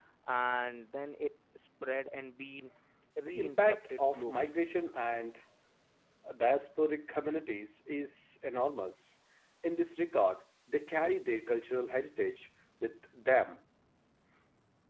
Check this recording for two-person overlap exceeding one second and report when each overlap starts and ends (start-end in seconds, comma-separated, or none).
3.2-4.5